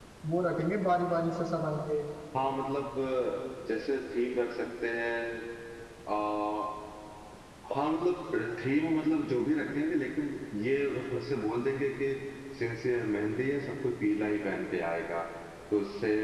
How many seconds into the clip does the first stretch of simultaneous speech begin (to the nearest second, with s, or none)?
none